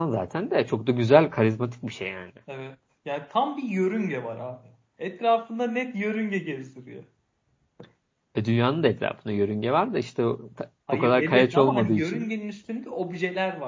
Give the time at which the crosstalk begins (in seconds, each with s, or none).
10.9 s